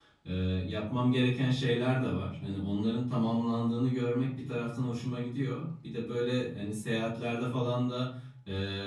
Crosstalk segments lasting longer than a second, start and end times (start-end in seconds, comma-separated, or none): none